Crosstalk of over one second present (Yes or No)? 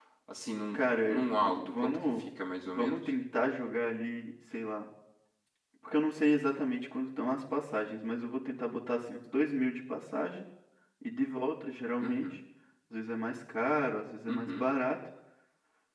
Yes